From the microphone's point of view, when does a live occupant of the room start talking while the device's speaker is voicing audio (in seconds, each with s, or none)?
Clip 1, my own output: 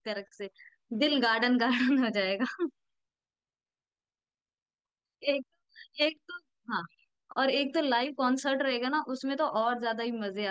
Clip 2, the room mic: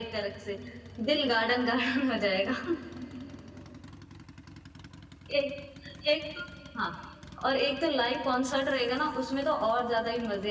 none